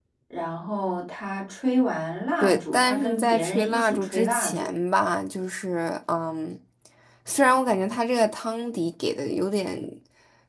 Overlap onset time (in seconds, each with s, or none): 2.4 s